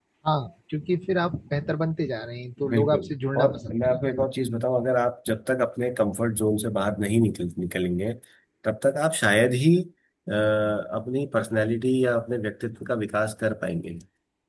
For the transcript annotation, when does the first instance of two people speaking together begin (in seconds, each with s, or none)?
2.6 s